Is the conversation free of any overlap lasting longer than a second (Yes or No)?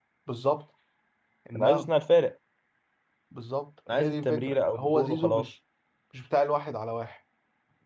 No